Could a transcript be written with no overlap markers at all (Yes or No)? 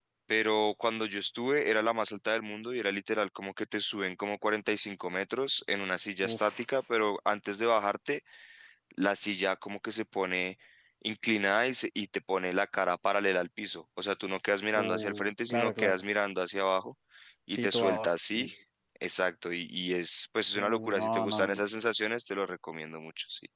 No